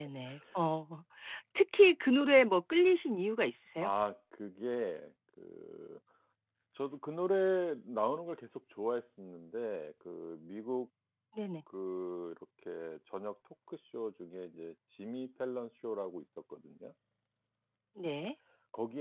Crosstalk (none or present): none